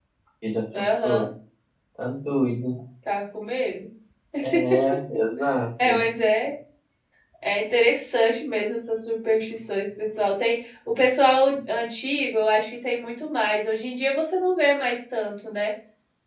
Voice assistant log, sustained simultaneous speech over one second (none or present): none